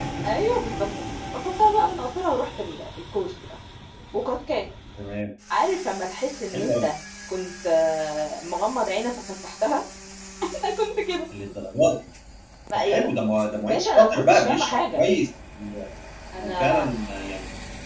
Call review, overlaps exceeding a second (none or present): present